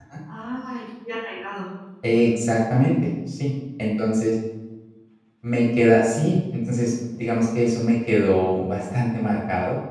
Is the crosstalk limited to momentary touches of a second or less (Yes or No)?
Yes